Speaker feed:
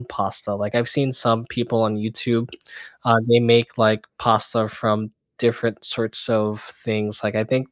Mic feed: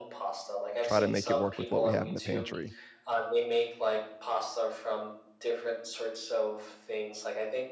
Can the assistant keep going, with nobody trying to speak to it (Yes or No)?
No